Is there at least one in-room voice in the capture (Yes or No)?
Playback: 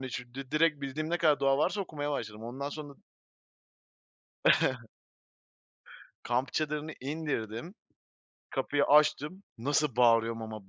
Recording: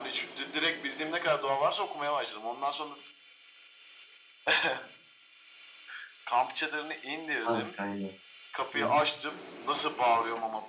Yes